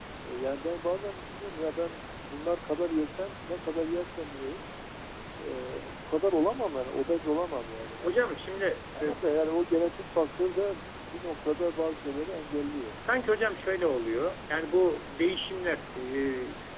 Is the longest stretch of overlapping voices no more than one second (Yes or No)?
Yes